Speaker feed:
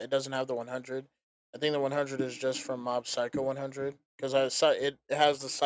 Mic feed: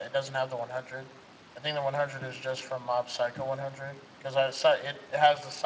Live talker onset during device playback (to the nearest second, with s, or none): none